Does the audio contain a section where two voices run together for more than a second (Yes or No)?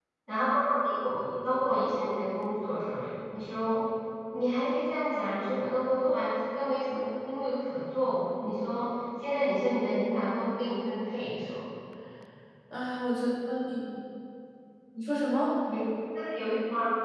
No